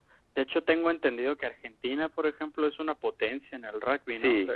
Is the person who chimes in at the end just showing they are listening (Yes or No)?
No